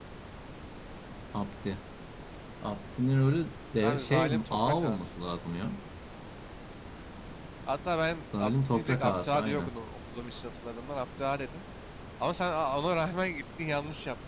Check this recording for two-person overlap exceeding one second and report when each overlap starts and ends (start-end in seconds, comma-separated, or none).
3.8-5.1, 8.4-9.7